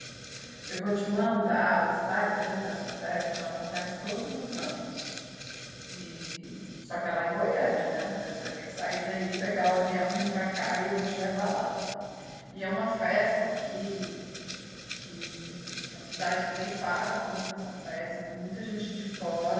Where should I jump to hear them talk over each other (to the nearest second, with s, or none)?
none